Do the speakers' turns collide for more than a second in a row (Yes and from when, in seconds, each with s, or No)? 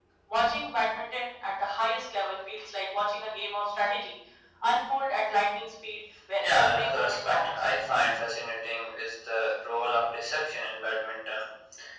Yes, from 6.4 s